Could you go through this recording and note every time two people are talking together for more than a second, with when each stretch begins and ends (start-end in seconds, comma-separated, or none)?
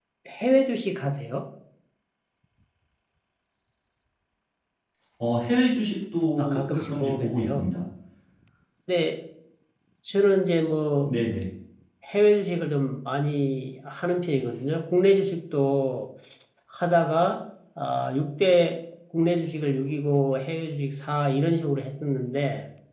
6.4-7.7